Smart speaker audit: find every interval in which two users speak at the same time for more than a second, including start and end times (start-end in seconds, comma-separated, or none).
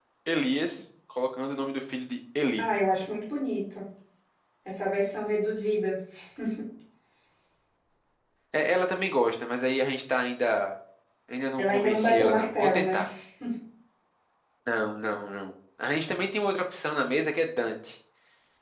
11.6-13.0